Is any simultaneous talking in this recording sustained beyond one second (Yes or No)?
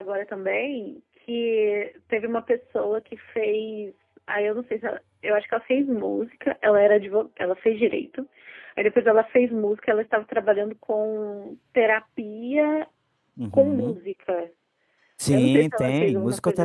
Yes